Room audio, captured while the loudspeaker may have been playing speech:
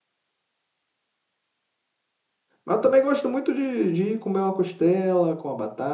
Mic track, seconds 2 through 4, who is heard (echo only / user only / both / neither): user only